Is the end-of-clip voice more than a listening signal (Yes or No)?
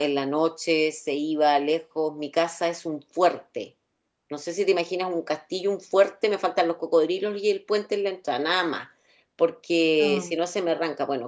No